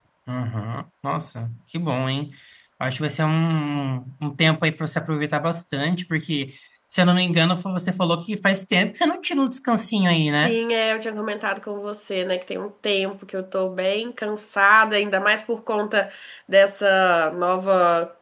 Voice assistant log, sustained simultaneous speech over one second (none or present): none